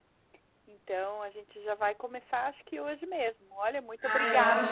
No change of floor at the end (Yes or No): No